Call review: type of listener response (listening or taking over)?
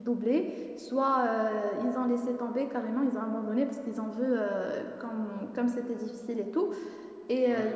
listening